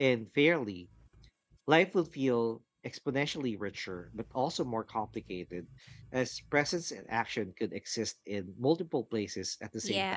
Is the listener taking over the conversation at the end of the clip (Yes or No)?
Yes